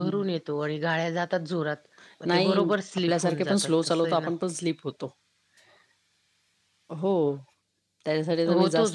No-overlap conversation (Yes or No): No